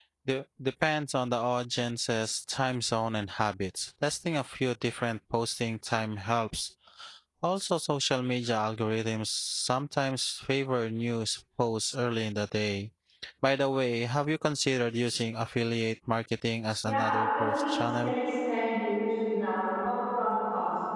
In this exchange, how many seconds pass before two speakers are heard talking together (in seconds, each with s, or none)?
16.9 s